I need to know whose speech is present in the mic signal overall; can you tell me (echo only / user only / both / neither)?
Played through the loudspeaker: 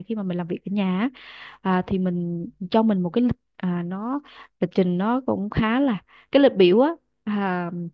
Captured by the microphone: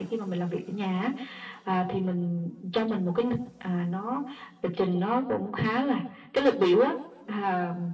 echo only